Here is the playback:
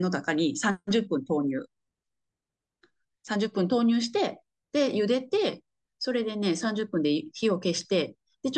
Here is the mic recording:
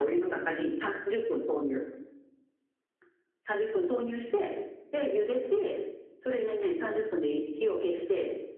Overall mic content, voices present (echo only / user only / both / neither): echo only